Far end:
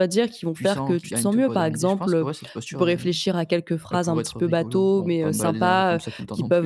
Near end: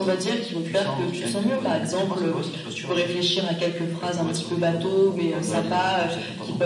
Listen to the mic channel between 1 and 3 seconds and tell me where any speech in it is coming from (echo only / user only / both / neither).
echo only